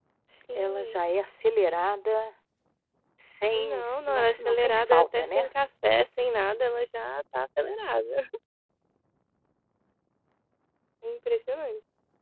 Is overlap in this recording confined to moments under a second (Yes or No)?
No